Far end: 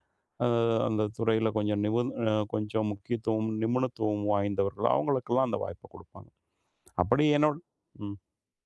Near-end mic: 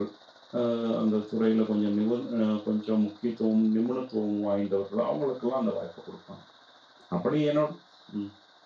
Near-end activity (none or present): none